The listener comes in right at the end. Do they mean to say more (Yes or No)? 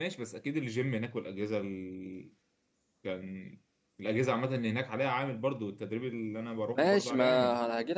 Yes